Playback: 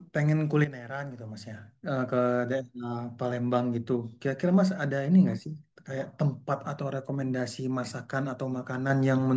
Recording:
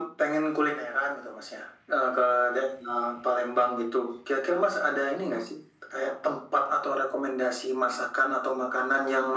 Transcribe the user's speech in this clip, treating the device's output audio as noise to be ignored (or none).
none